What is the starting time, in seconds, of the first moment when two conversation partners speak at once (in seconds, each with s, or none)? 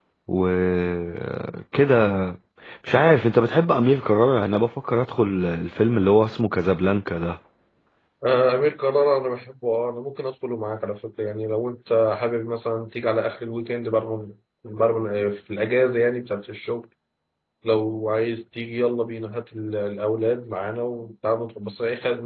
none